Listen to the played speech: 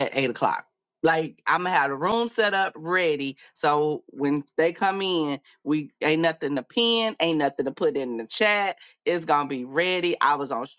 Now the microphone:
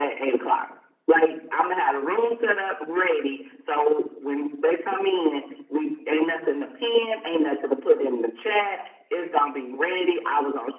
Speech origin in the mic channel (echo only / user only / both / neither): echo only